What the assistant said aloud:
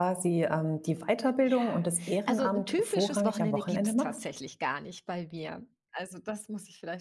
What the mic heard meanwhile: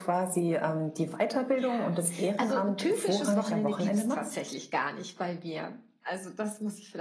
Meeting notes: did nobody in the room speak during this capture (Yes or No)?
Yes